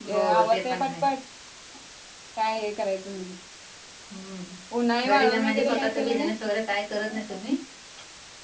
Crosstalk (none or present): present